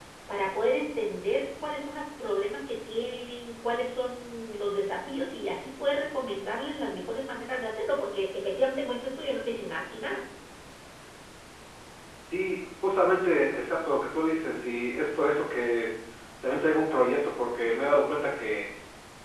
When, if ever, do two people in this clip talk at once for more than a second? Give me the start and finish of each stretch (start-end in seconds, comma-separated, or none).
none